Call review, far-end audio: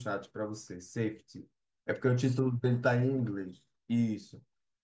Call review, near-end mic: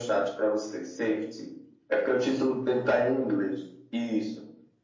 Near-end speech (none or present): none